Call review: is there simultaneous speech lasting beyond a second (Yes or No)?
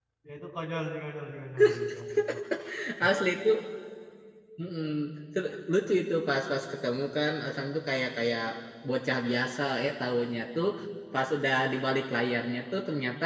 No